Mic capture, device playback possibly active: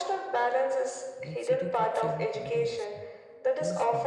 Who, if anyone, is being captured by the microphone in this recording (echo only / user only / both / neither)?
both